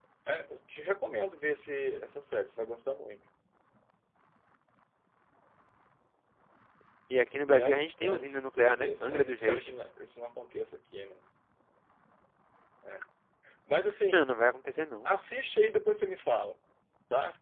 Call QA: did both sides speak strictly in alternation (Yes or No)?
No